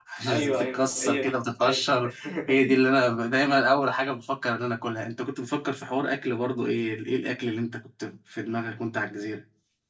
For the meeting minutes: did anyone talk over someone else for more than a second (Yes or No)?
Yes